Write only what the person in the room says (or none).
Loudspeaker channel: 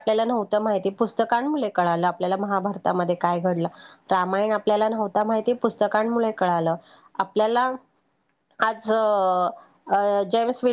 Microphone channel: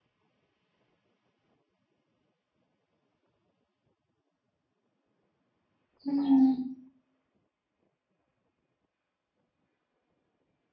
हं.